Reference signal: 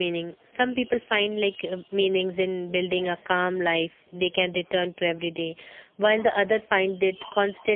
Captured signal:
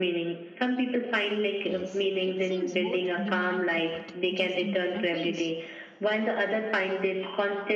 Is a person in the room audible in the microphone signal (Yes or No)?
Yes